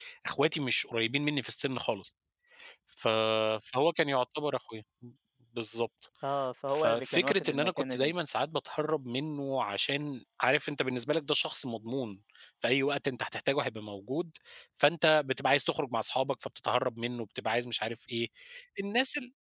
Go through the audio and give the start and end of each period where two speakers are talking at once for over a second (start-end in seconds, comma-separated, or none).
6.7-8.1